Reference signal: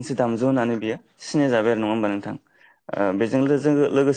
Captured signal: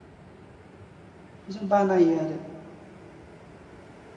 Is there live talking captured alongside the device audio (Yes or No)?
Yes